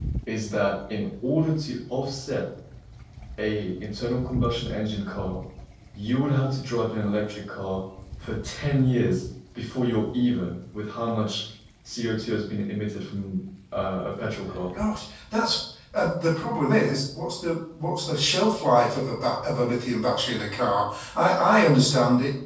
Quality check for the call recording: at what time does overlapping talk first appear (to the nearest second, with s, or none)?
none